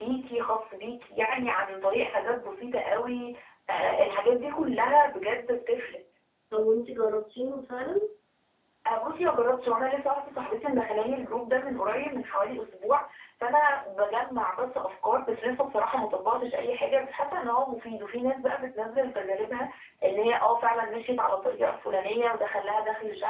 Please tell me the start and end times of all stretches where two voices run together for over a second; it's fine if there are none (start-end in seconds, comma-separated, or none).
none